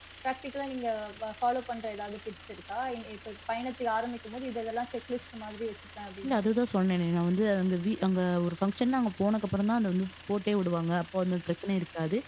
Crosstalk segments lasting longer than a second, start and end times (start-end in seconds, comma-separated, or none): none